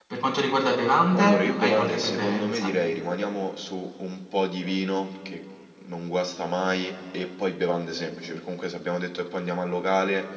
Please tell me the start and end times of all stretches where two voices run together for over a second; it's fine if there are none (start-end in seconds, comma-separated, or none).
1.1-2.7